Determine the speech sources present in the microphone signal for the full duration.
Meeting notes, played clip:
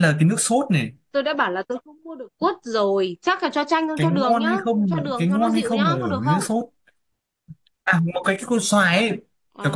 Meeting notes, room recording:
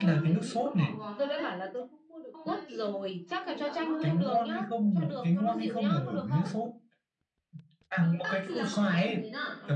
both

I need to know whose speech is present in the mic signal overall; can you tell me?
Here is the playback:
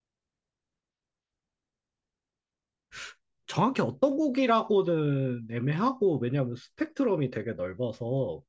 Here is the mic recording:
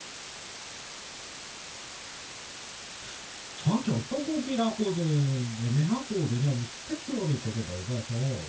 echo only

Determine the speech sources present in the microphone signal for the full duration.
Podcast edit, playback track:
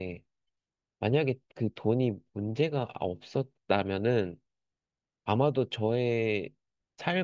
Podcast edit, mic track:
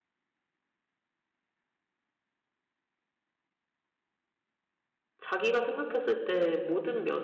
user only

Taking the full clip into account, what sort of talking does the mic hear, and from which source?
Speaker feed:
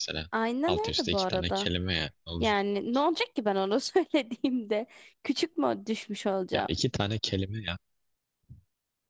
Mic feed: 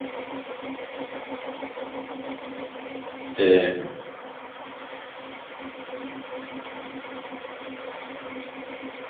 user only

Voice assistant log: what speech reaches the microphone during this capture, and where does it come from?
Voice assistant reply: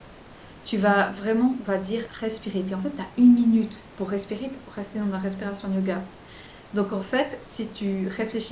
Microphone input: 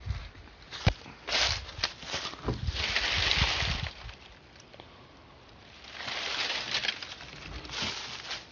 neither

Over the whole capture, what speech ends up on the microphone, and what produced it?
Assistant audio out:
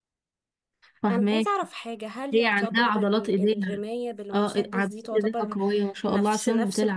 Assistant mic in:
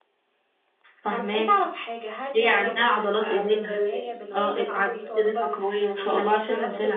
both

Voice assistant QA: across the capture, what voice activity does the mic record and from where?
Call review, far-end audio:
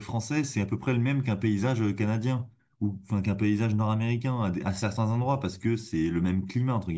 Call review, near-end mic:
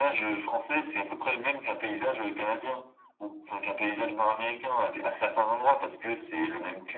echo only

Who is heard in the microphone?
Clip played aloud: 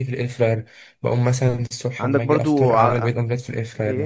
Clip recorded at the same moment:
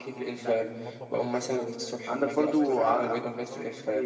both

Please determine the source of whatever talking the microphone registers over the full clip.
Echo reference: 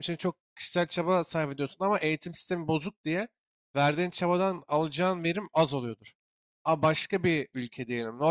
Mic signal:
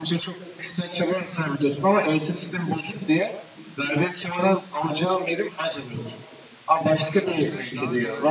both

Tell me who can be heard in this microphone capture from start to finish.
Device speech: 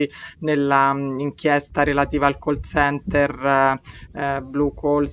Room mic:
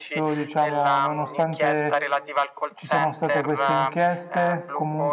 both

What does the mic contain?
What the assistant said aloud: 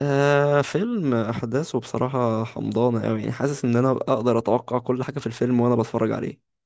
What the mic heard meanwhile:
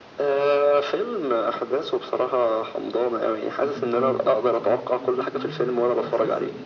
both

